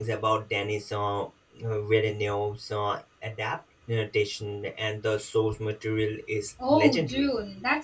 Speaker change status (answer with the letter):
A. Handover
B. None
A